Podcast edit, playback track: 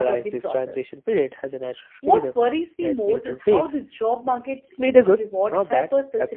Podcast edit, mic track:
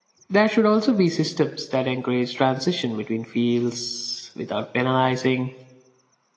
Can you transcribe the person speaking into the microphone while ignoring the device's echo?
There should also be systems that encourage transition between fields without penalizing

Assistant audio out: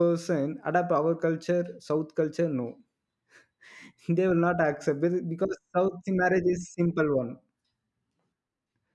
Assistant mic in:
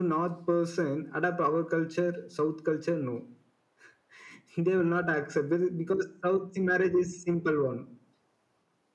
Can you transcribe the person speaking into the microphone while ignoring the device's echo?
none

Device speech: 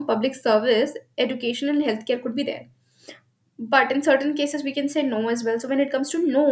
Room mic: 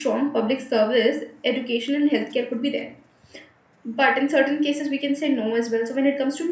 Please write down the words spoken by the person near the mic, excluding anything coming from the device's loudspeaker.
none

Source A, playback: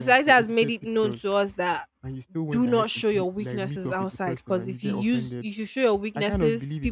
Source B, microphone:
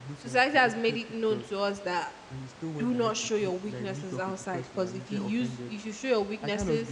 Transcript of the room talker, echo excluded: none

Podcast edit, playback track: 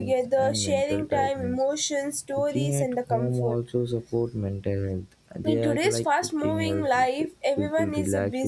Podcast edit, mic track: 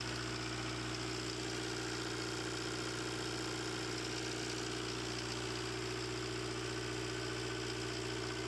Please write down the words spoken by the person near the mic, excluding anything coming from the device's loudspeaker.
none

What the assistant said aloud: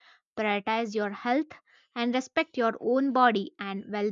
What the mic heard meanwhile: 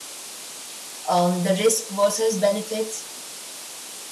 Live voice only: Um, the risk versus benefits.

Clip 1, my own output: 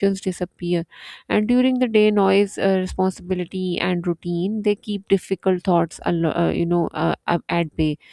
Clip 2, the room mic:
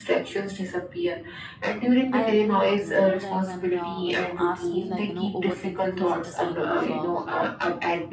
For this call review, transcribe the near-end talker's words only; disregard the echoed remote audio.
I agree with you, you know, like when uh, when you ask me, like you know, overthinking is it a sign of uh,

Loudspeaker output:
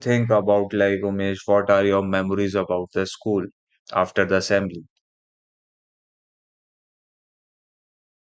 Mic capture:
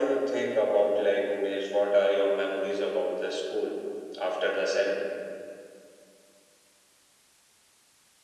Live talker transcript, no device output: none

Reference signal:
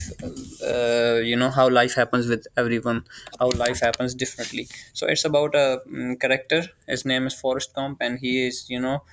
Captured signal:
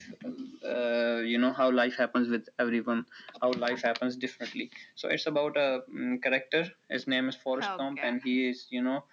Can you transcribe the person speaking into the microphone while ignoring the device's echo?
Okay.

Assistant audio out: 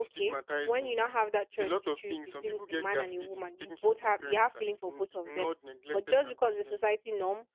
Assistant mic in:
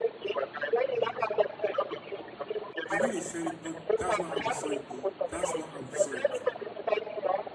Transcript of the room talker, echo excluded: the way they said it, no, that's not how we saw it though. That's not how we saw it.

